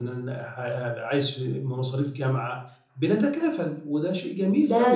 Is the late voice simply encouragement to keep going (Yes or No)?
No